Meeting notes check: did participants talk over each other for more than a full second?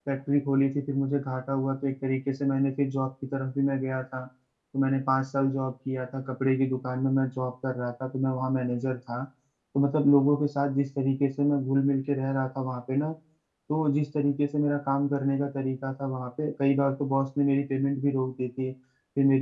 No

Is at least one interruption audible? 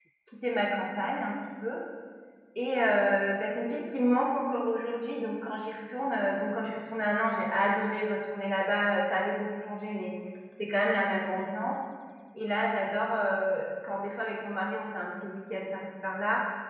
No

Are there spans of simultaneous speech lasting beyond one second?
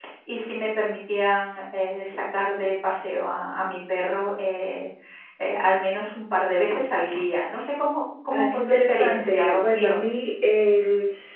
Yes, from 8.3 s

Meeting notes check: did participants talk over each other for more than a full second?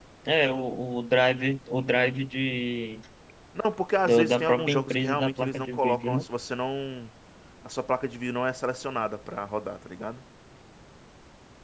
Yes, from 4.0 s

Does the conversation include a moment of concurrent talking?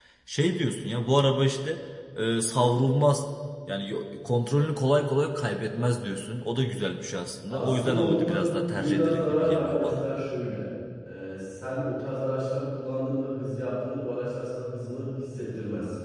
Yes, from 7.5 s

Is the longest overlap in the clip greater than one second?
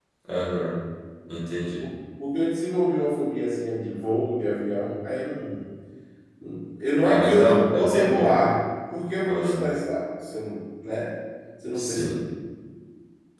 Yes, from 7.0 s

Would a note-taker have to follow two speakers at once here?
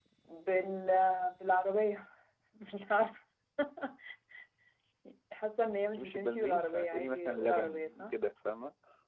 Yes, from 6.0 s

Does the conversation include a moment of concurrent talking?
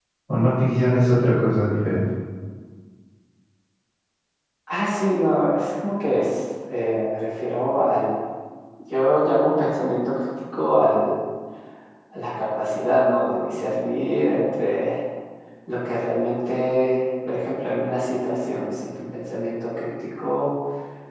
No

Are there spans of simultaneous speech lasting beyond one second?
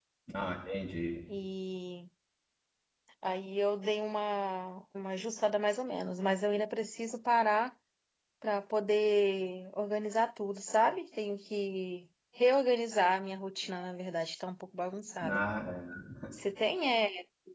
No

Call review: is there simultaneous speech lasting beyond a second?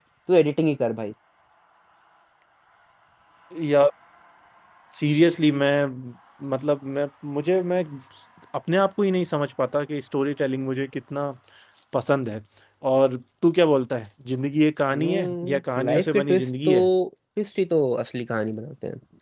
Yes, from 14.9 s

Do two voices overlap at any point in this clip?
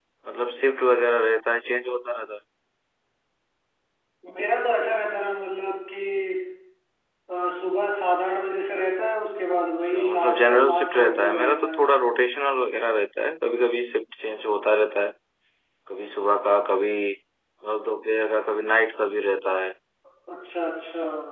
Yes, from 9.8 s

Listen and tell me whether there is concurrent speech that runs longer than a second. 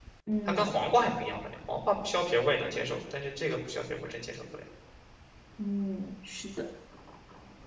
No

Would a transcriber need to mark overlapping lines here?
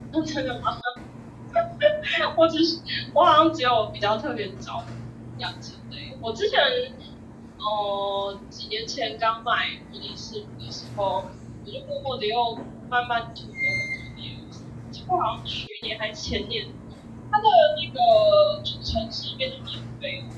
No

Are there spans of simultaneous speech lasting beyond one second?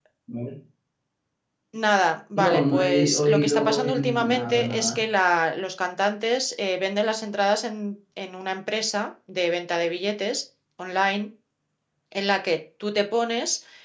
Yes, from 2.4 s

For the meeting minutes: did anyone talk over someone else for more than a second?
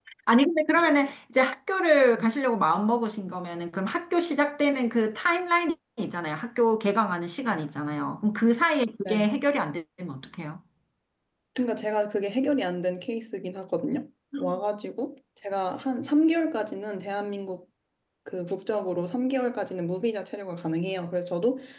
No

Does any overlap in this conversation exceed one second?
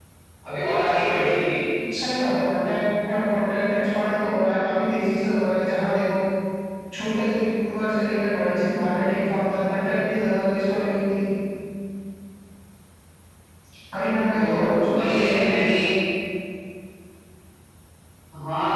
Yes, from 14.3 s

